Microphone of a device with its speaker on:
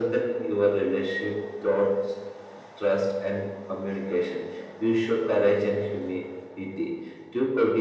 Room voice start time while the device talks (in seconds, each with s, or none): none